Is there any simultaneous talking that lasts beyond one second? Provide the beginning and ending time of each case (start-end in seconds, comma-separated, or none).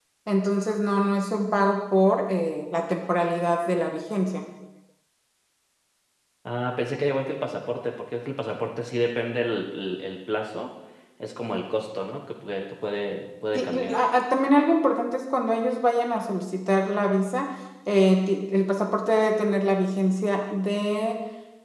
none